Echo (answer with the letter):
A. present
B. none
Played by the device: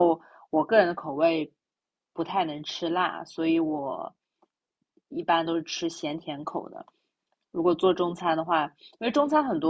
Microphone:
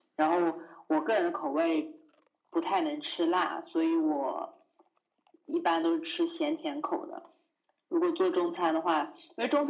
A